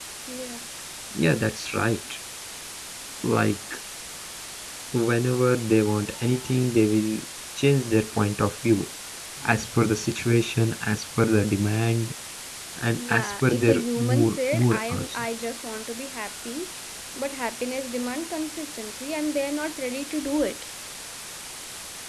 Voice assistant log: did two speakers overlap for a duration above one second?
Yes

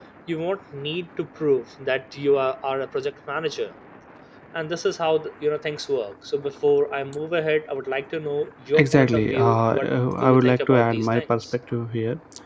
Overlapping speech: Yes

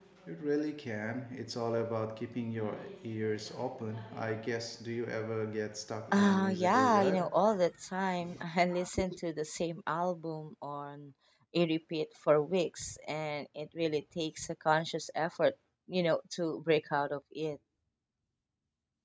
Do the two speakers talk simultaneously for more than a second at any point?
Yes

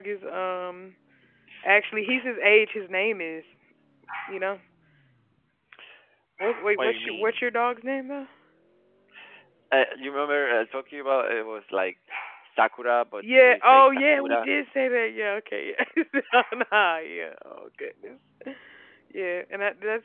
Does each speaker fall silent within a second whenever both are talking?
No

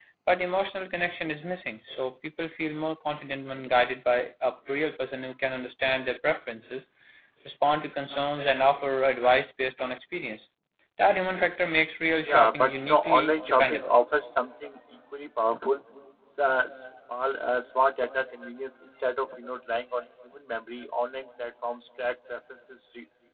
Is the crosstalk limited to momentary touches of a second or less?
No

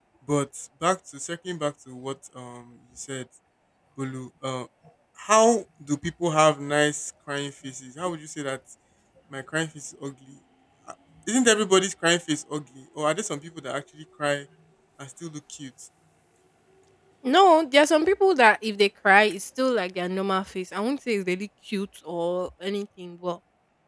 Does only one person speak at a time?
Yes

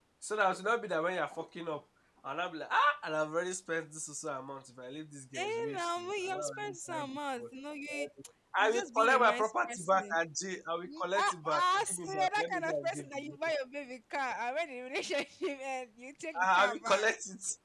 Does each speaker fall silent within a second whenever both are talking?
No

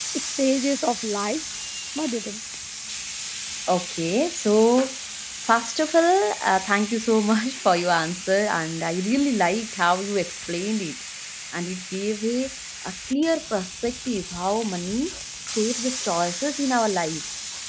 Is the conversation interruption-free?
Yes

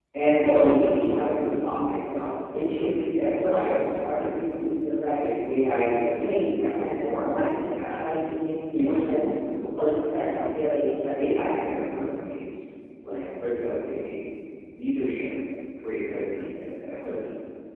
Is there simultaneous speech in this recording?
Yes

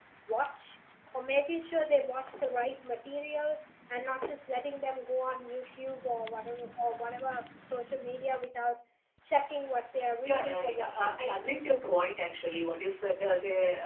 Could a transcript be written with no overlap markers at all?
No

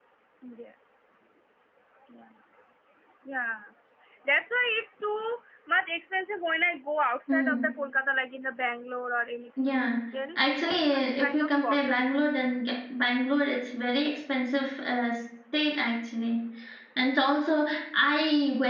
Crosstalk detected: Yes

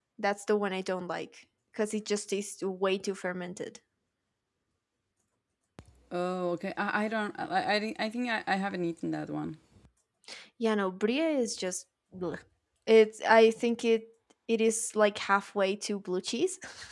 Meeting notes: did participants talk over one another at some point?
No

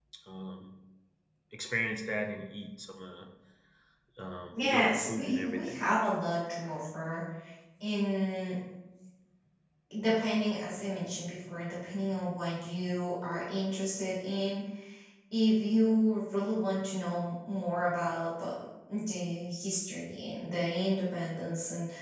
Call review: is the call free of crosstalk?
No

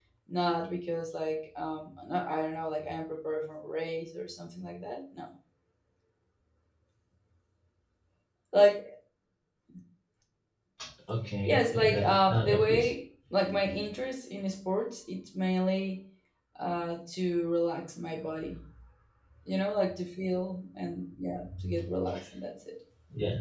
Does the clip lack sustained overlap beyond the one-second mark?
No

